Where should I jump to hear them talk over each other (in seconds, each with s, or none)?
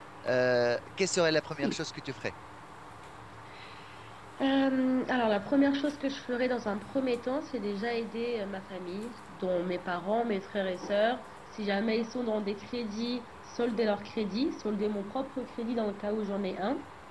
none